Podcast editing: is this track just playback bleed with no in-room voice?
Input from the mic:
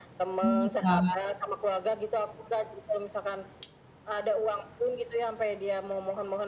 No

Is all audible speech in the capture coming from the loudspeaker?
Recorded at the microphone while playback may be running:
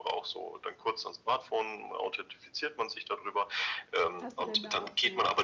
No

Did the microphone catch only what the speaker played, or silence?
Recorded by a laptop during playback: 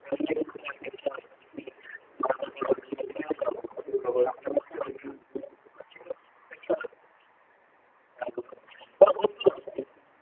No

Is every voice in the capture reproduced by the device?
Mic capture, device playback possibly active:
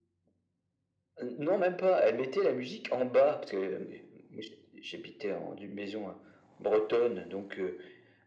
Yes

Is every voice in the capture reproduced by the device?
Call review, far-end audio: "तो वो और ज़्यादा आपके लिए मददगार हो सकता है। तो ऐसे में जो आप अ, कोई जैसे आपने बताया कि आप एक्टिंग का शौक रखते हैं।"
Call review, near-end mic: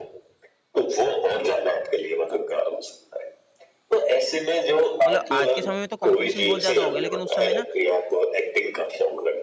No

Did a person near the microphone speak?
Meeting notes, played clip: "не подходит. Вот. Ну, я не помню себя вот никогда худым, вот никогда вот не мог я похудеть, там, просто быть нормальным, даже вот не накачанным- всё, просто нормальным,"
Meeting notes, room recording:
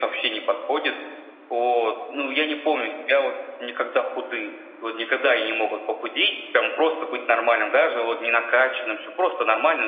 No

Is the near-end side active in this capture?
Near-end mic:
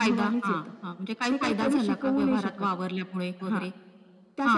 No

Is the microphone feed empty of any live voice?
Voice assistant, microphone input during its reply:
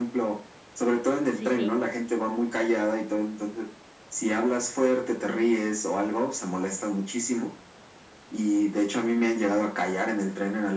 No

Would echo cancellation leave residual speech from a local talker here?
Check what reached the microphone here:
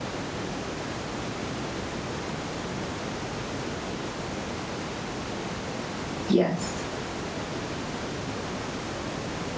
Yes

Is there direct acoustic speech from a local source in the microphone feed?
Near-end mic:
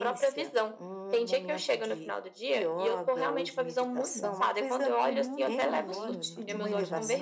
Yes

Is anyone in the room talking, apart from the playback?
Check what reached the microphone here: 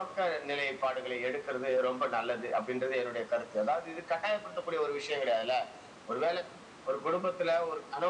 No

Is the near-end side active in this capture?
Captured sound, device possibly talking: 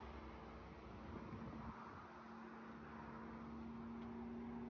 No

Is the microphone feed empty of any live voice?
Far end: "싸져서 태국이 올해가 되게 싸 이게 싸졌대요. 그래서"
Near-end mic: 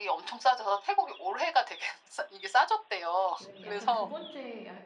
No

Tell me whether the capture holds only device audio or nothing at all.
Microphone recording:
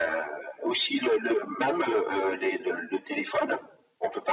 Yes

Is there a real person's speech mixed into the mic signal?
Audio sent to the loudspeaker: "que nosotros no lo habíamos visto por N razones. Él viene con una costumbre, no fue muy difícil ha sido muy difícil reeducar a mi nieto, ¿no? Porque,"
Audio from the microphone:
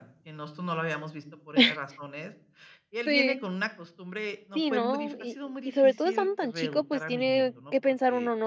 Yes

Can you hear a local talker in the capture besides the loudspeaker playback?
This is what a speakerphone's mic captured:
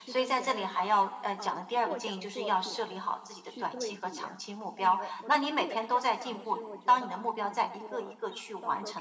Yes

